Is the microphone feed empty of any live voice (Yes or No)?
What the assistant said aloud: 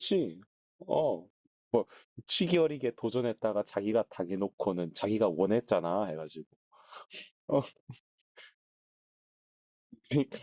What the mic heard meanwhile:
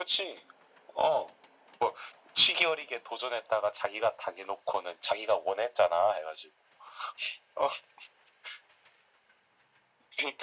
Yes